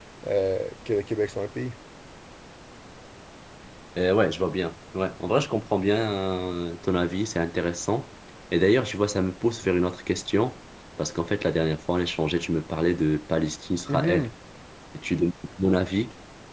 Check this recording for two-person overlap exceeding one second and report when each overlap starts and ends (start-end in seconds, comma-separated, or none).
none